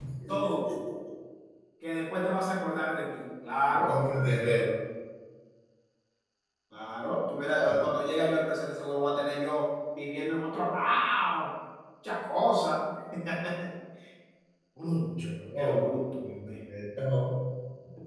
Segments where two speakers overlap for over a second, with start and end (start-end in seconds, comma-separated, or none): none